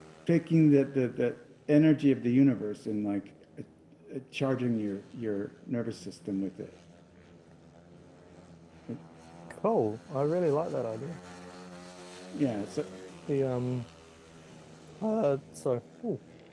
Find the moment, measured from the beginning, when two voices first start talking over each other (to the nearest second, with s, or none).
none